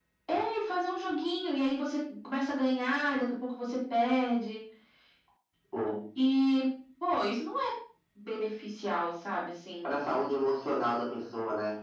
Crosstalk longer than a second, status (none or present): none